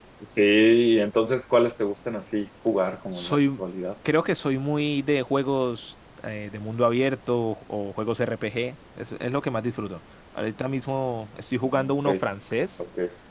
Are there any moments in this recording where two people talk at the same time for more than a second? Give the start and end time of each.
none

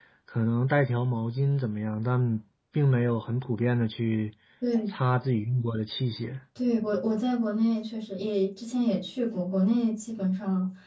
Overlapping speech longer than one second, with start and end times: none

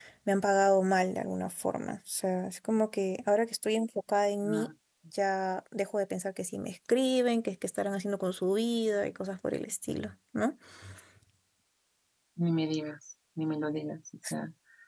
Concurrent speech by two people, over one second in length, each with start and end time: none

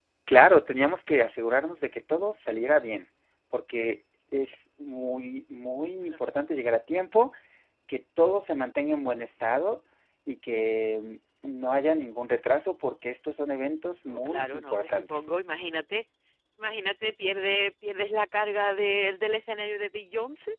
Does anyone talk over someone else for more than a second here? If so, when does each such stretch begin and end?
14.1-15.3

